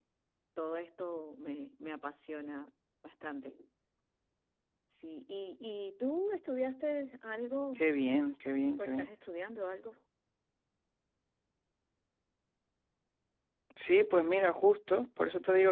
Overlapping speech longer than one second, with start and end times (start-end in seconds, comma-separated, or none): none